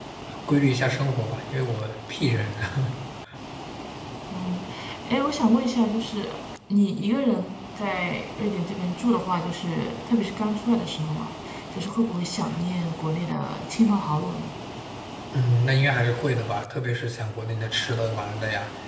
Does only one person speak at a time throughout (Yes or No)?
Yes